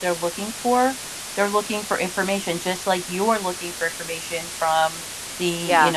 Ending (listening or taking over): listening